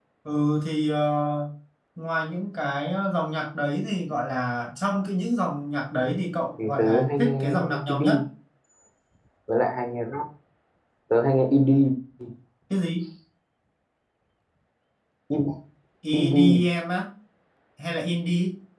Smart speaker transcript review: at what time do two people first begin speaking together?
6.6 s

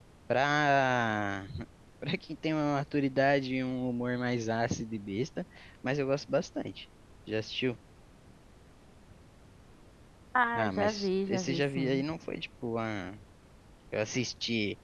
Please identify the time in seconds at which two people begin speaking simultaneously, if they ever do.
10.6 s

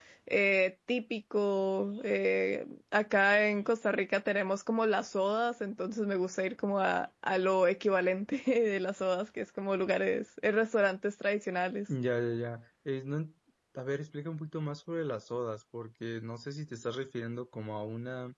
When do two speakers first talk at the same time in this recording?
none

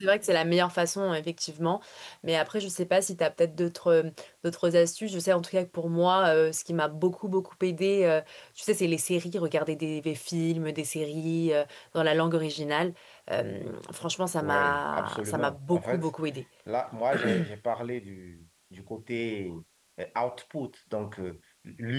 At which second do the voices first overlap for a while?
14.4 s

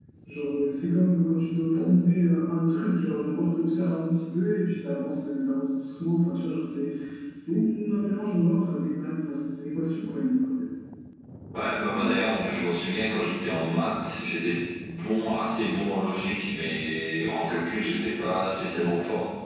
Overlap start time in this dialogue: none

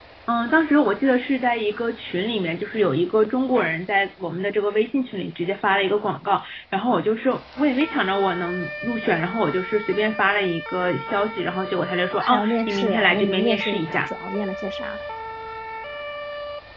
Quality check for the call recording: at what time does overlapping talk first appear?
12.1 s

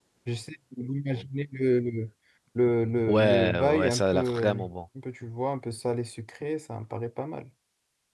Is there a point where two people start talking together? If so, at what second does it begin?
3.1 s

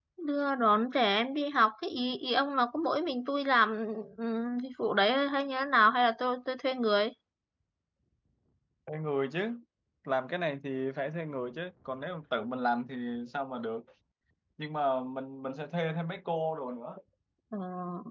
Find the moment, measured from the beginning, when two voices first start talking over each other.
none

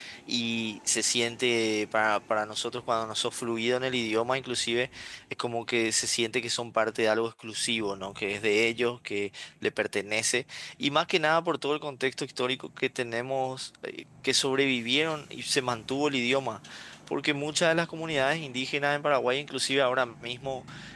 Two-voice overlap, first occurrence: none

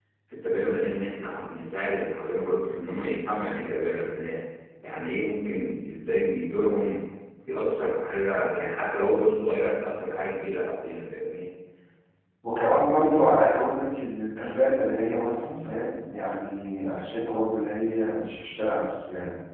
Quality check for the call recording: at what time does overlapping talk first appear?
none

